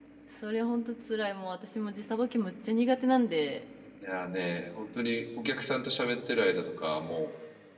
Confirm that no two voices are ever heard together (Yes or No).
Yes